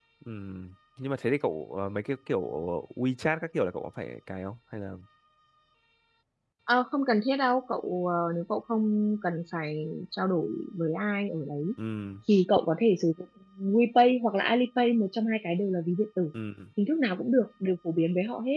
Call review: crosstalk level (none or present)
none